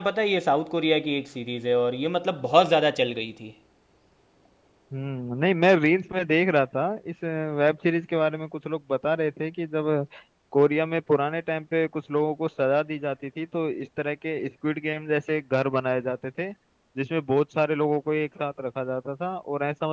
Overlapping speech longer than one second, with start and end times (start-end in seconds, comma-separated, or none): none